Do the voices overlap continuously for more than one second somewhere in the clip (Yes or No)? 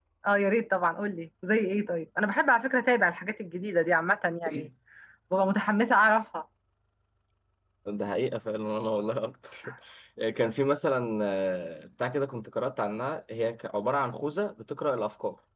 No